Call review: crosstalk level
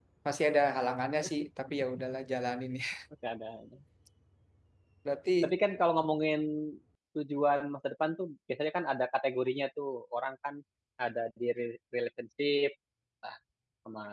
none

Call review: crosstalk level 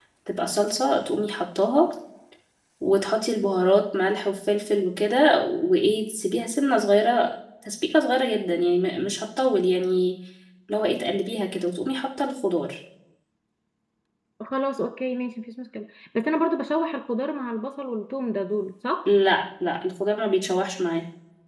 none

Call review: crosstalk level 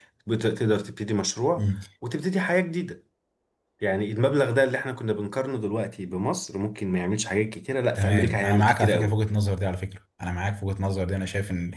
present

